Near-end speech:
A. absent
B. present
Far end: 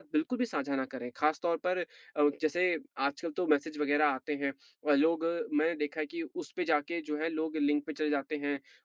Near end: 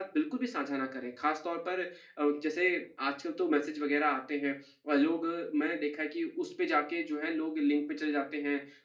A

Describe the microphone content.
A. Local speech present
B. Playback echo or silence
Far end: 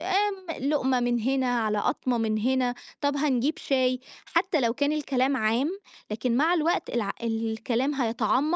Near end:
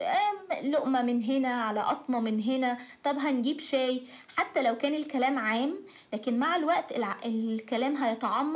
B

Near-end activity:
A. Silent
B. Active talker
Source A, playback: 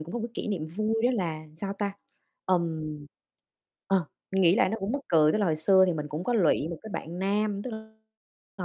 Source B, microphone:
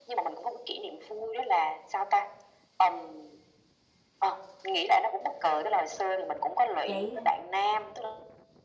B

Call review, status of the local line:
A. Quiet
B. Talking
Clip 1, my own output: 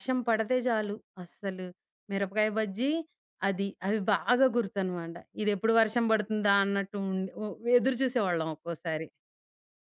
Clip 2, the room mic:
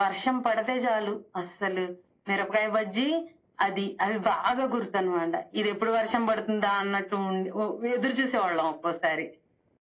A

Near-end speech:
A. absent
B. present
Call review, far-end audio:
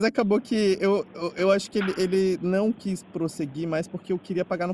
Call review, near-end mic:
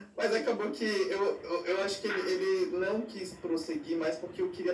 A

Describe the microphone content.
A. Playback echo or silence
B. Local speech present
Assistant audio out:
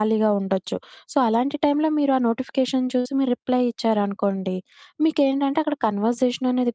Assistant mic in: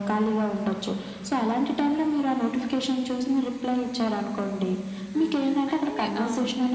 B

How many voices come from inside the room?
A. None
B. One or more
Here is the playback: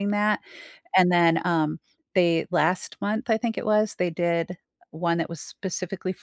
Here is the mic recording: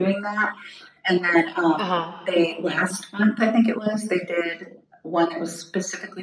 B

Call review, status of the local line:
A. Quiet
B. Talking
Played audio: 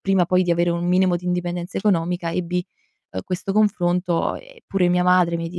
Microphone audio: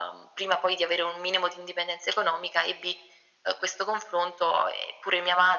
A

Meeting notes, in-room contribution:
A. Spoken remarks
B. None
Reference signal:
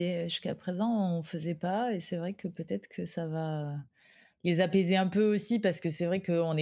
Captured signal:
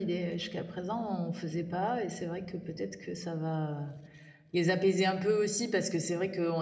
B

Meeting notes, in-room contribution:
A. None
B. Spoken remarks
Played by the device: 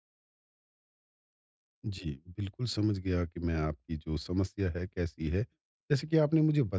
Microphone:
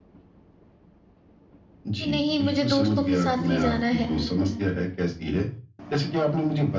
B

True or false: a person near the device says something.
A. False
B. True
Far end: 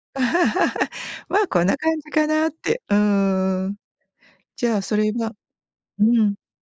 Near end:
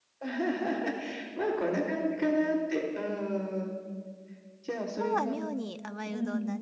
B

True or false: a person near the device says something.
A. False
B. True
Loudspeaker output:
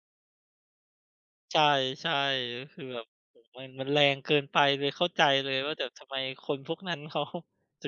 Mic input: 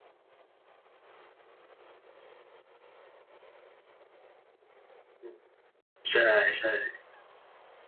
B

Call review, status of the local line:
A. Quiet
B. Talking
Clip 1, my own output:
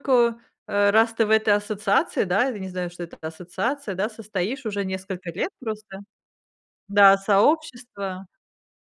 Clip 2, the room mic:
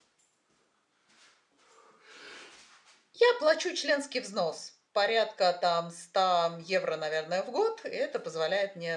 B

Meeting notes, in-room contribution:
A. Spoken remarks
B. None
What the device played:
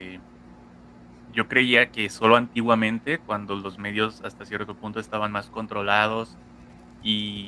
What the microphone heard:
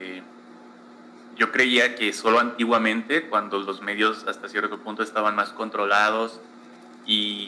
B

